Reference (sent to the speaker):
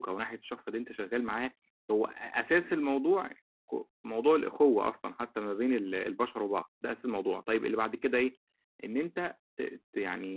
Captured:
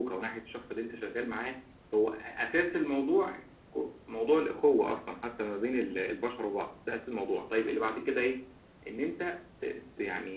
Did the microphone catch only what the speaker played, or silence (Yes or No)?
Yes